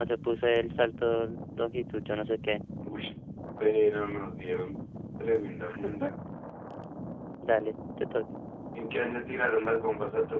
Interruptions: none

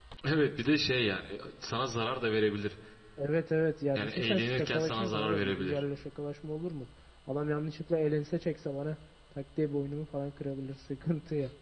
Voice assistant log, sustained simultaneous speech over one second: present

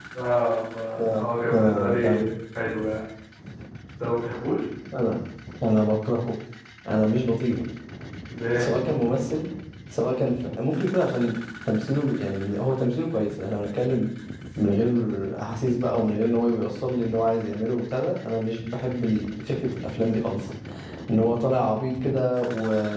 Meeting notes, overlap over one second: present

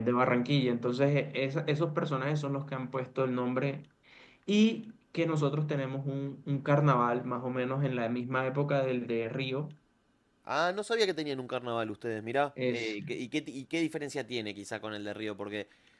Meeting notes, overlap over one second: none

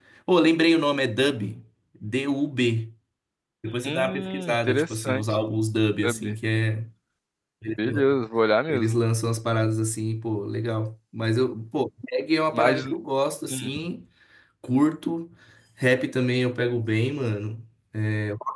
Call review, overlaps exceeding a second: present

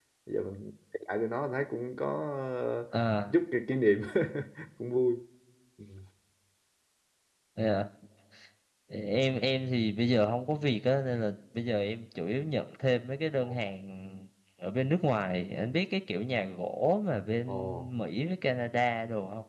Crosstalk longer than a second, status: none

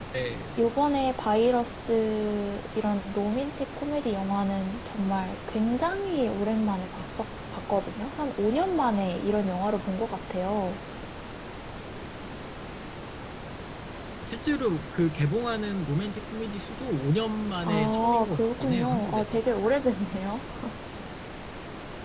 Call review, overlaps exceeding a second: present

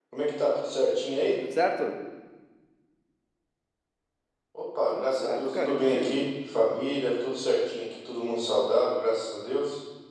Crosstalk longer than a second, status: present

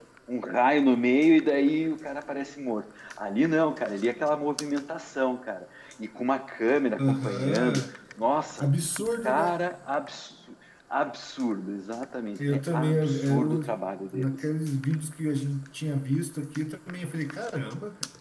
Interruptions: present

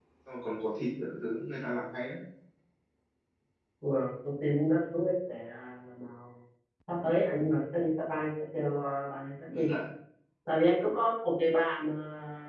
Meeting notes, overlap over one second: none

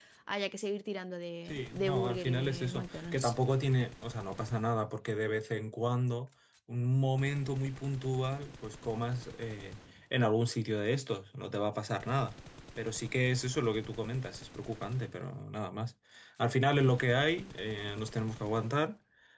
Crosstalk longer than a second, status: present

